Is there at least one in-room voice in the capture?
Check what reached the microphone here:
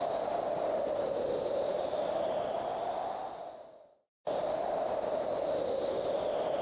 No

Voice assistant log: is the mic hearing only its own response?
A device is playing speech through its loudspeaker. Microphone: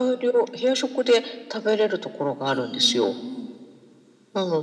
No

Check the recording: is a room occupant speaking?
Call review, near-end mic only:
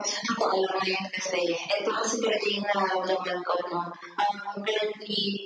No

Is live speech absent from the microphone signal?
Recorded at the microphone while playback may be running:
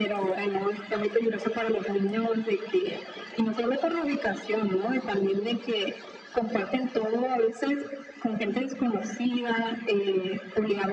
Yes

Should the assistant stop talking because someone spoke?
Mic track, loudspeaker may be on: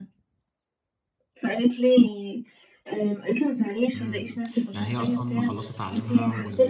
Yes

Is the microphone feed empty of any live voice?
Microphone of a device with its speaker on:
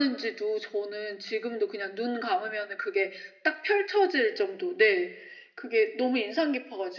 Yes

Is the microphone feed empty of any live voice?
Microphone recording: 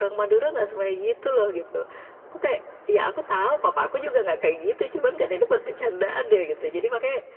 Yes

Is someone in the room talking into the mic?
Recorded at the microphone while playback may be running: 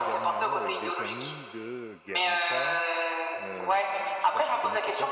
Yes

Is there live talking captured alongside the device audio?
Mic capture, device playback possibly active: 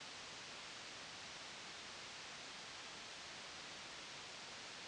No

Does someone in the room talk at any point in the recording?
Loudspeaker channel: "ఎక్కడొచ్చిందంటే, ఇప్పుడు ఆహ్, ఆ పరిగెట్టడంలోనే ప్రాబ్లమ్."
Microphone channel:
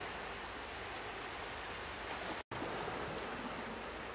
No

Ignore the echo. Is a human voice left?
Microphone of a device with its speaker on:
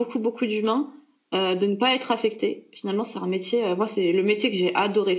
No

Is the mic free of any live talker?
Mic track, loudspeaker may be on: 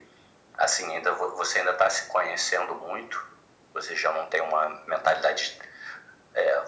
Yes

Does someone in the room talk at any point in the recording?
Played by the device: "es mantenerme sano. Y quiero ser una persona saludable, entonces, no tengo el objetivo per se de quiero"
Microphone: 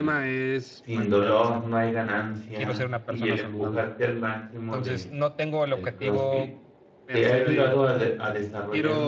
Yes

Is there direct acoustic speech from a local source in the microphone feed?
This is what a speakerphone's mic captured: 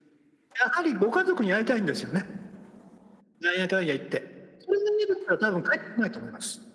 No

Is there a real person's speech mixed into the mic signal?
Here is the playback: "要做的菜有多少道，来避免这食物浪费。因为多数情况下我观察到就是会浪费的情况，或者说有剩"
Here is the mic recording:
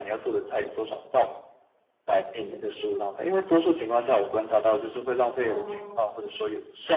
Yes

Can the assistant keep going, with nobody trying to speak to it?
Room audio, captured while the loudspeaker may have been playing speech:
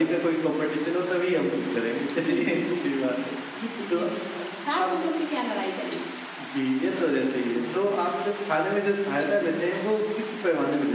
Yes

